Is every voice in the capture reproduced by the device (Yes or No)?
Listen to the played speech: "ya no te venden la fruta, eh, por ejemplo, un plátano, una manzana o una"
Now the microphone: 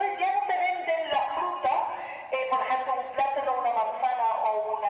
Yes